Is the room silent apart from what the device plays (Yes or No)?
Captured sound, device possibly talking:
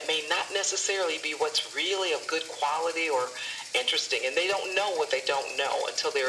Yes